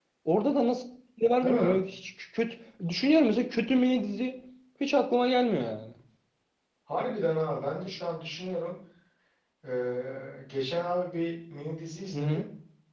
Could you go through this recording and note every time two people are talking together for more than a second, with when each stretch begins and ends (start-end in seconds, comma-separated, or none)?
none